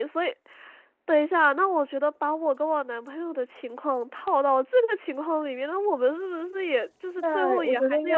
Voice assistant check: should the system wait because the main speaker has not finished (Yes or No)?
No